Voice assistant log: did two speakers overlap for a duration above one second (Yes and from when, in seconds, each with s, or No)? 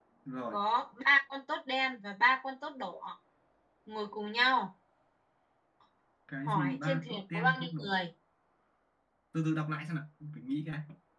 Yes, from 6.5 s